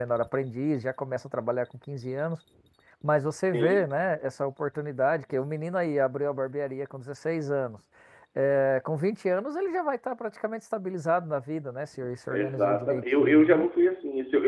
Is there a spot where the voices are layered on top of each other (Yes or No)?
Yes